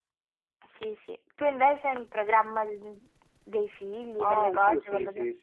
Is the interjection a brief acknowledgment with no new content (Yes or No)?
No